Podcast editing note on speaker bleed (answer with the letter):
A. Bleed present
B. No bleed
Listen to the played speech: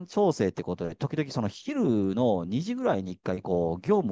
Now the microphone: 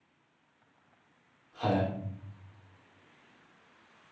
B